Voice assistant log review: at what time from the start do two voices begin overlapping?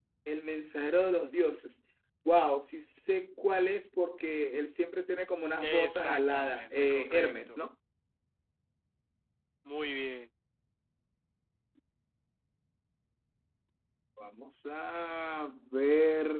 6 s

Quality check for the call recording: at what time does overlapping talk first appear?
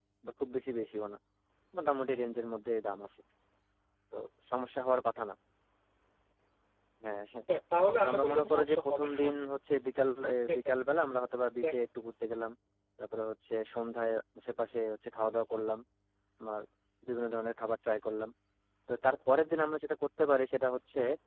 8 s

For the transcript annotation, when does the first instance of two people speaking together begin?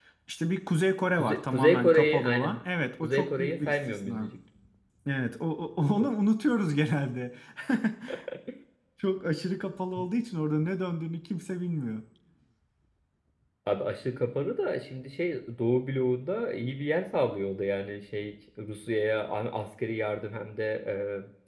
1 s

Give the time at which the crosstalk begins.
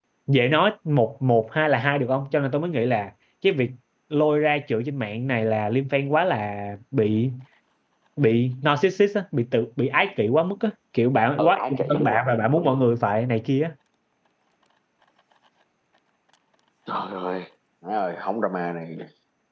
11 s

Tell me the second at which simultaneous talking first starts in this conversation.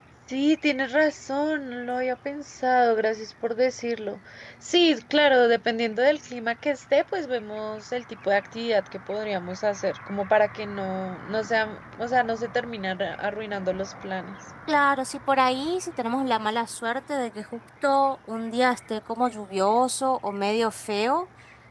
none

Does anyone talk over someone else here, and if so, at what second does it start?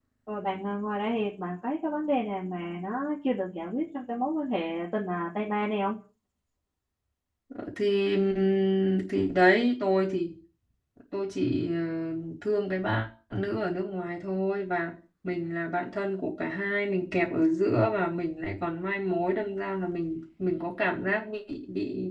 none

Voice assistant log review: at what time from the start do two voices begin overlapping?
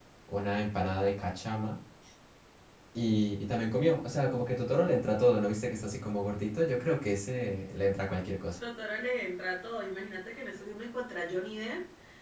none

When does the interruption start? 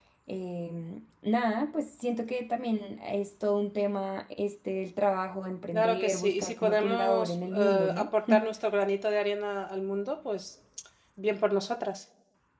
6 s

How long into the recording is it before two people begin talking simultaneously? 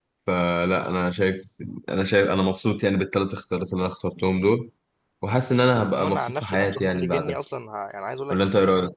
6 s

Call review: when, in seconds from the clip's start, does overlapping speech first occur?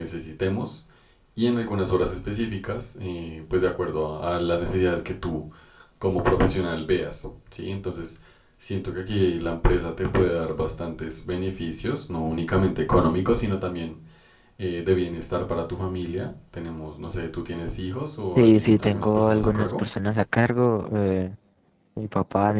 18 s

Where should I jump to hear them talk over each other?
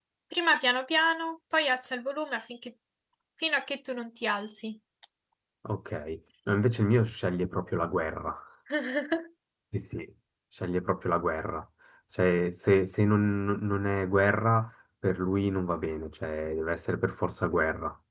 none

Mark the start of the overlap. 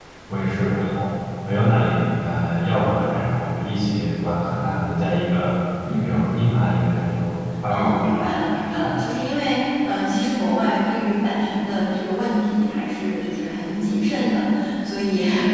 8 s

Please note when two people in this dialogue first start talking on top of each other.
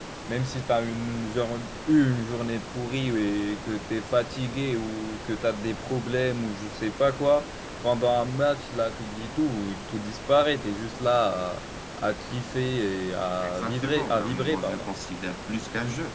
13 s

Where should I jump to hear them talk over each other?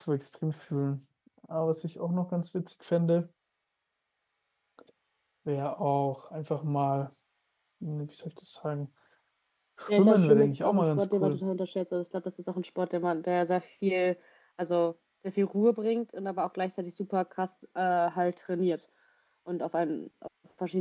10 s

